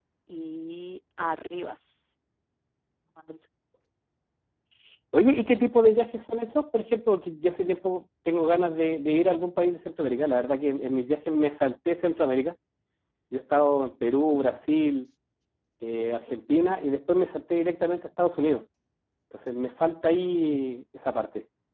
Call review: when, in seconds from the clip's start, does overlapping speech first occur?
none

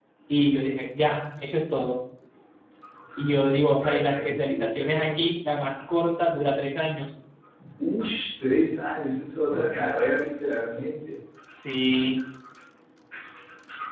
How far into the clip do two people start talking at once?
3.8 s

